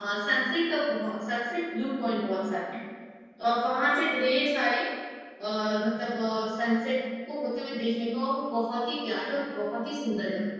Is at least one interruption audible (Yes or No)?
No